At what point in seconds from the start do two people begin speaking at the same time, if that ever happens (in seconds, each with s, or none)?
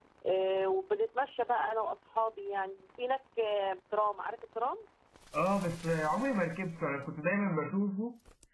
none